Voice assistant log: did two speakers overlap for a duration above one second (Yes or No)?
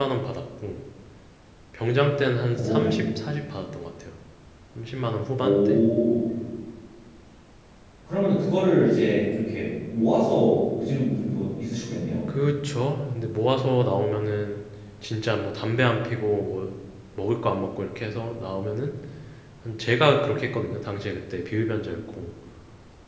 No